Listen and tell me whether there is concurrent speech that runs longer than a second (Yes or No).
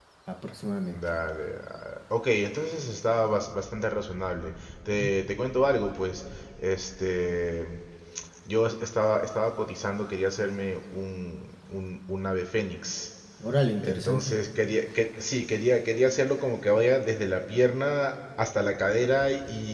No